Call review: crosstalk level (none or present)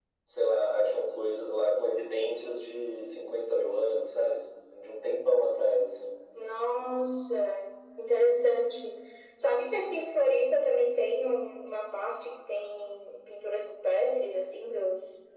none